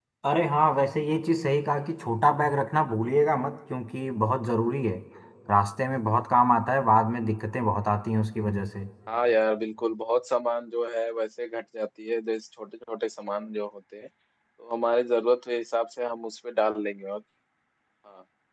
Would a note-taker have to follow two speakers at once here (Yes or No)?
No